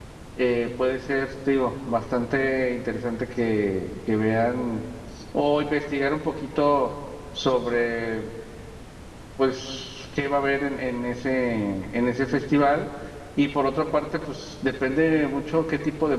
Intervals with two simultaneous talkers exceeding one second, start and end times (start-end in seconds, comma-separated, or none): none